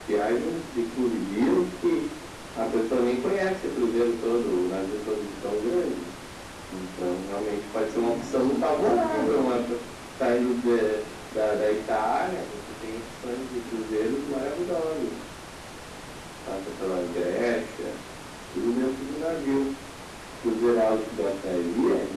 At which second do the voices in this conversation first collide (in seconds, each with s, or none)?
7.9 s